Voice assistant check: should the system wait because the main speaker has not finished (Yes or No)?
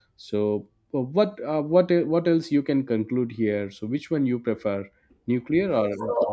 No